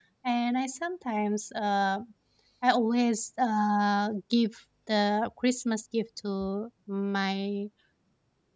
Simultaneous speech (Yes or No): No